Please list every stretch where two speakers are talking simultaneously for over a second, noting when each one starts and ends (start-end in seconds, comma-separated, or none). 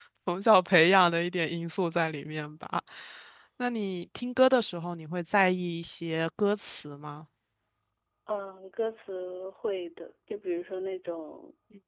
none